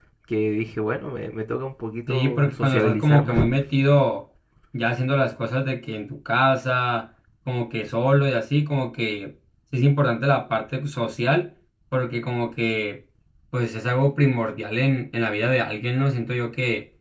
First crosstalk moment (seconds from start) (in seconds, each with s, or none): 2.1 s